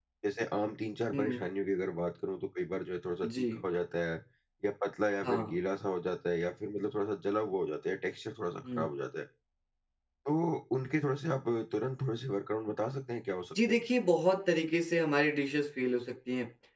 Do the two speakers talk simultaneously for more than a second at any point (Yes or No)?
No